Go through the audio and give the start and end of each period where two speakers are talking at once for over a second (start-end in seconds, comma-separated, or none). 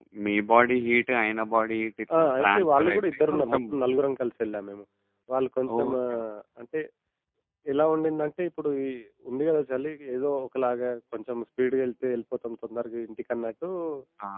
2.2-3.6